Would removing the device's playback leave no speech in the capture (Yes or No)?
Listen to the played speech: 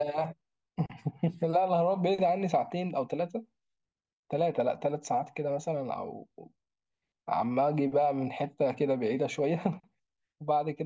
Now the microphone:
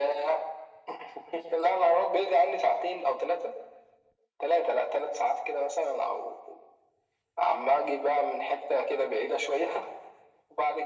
Yes